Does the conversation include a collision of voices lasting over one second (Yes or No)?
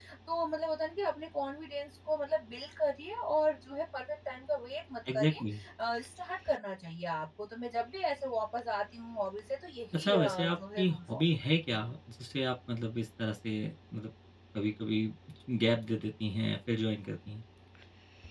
Yes